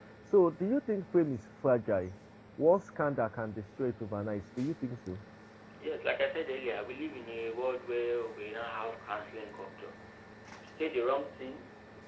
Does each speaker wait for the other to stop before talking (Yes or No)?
Yes